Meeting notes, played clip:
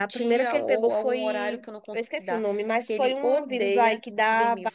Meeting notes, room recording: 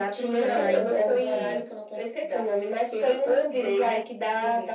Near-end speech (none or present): present